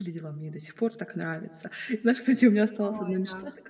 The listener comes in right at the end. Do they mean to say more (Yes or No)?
No